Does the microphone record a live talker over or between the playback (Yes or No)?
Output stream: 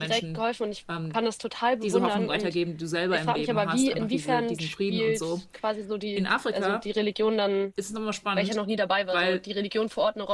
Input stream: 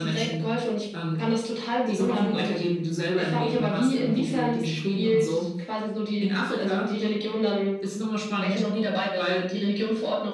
No